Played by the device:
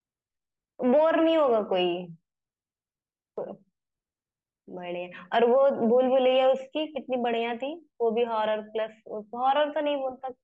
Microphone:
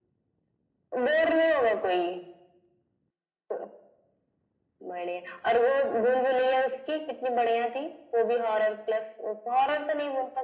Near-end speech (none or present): none